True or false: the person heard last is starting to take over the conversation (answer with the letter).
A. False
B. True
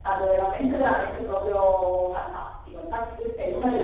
A